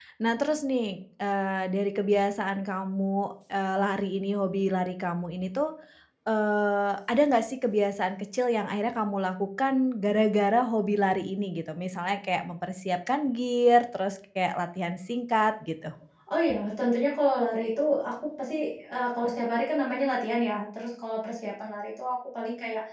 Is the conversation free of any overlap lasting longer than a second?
Yes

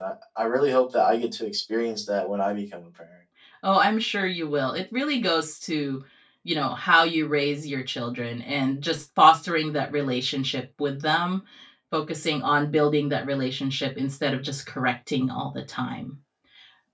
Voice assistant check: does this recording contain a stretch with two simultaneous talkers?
No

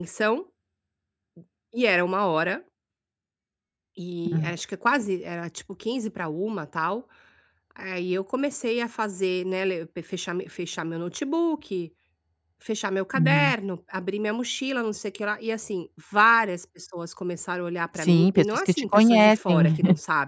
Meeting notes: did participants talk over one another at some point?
Yes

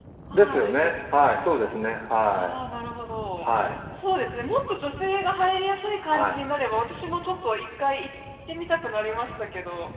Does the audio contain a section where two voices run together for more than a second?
No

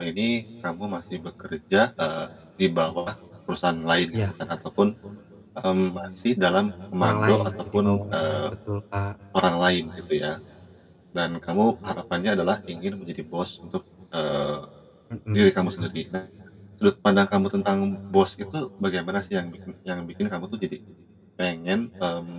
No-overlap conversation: No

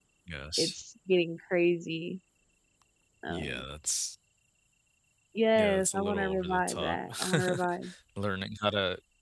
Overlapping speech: Yes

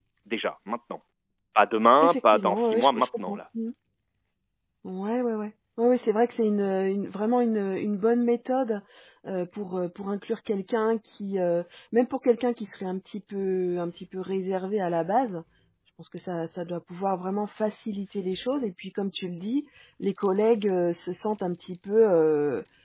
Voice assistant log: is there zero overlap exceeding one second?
No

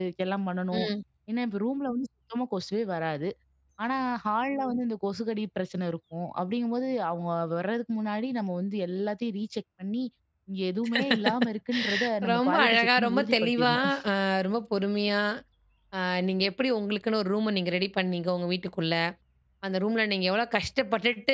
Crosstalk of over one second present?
Yes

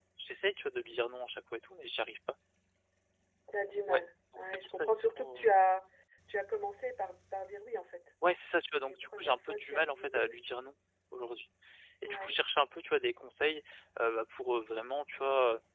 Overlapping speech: Yes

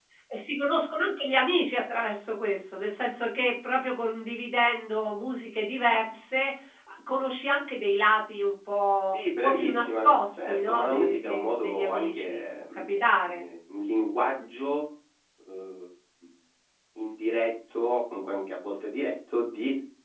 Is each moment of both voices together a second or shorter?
No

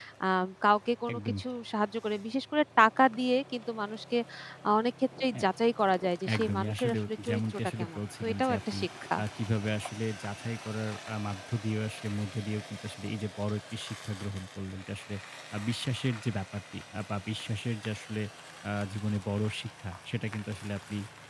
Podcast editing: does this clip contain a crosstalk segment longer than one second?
Yes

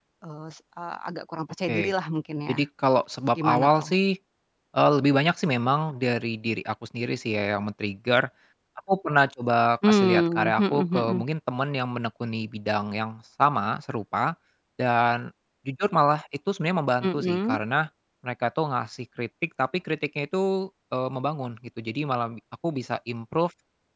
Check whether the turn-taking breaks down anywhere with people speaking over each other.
Yes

